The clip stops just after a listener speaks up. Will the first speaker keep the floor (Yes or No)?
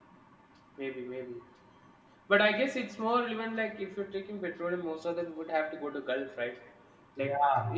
Yes